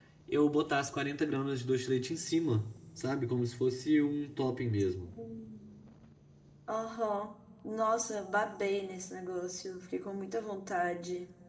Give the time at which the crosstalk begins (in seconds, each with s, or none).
none